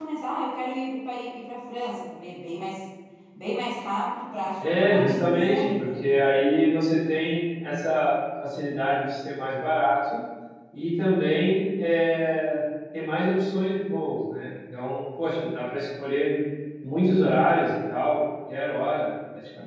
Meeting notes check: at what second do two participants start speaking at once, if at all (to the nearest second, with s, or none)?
5 s